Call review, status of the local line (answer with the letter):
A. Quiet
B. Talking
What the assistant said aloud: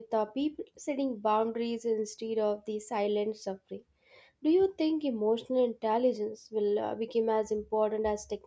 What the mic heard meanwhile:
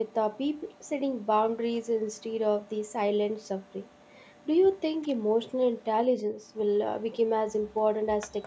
A